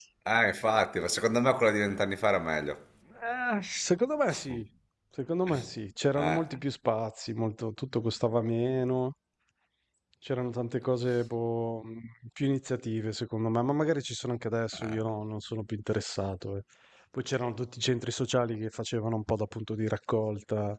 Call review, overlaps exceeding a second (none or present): none